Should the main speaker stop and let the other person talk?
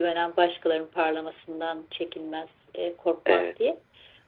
No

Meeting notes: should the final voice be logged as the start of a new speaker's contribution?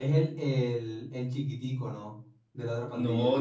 Yes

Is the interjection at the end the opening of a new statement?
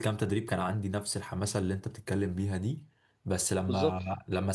No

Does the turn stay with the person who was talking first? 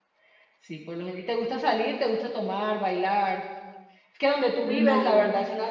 Yes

